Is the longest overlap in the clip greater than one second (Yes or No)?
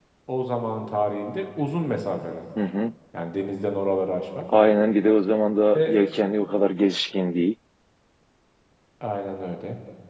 No